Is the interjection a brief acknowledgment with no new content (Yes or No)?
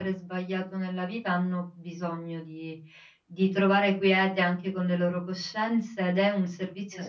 Yes